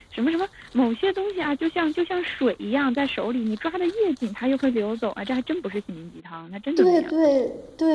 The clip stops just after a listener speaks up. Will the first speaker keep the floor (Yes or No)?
No